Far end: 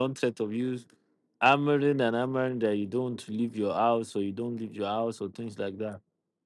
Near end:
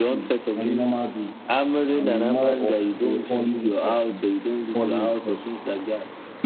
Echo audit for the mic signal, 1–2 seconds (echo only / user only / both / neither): both